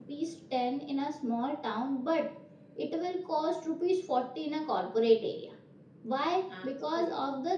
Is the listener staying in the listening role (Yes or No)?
Yes